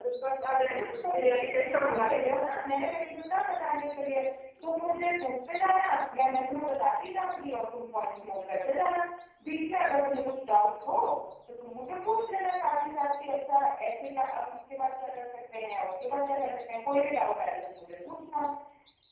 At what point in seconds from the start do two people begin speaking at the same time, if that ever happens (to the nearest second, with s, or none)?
1 s